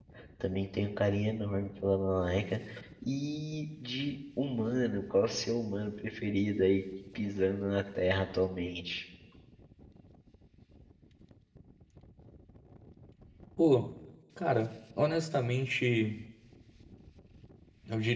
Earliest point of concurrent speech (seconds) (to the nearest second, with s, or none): none